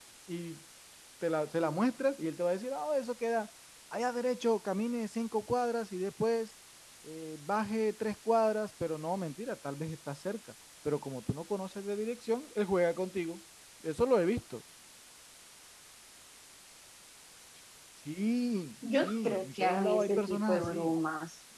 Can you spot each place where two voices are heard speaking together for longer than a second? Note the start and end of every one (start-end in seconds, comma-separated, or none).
19.0-20.9